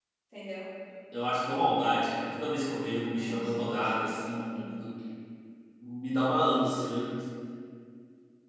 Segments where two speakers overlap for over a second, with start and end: 3.2-4.8

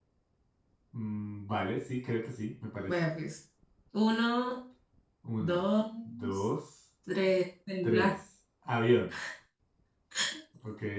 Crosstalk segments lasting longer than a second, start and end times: none

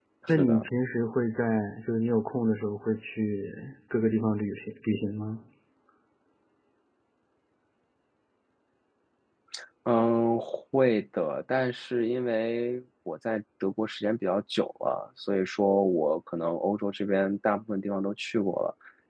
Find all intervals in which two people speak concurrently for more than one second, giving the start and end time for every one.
none

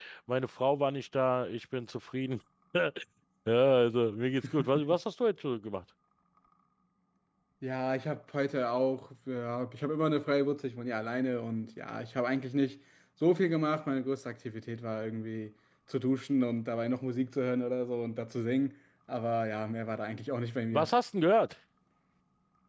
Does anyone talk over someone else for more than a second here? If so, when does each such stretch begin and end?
none

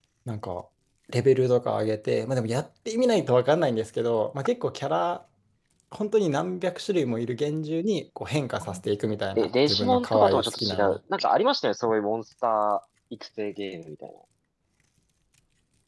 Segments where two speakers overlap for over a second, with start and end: 9.4-11.0

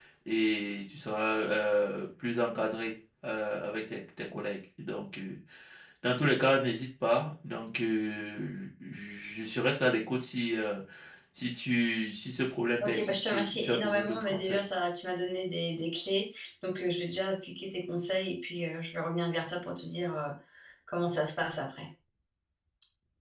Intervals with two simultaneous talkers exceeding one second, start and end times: 12.8-14.7

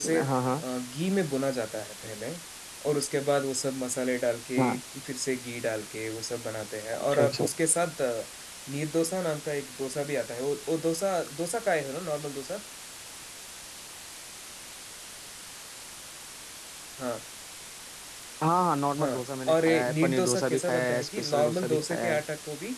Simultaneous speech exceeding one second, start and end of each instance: 19.0-22.2

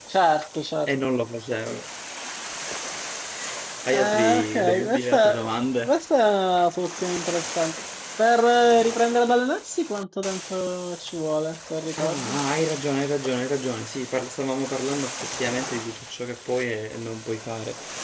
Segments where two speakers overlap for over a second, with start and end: 3.9-5.5

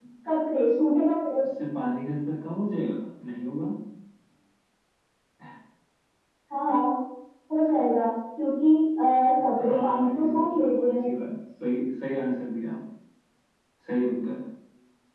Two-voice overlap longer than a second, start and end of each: 9.6-11.0

